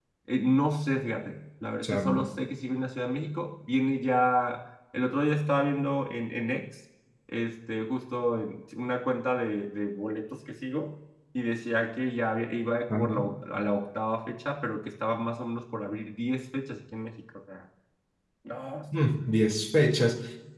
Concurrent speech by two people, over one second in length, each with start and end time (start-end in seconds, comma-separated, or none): none